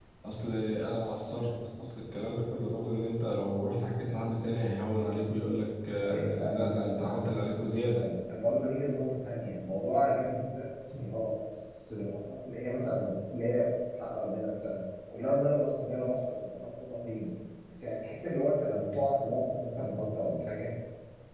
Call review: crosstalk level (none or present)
present